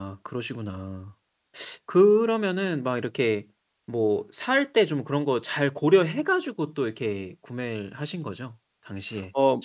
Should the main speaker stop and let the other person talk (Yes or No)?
Yes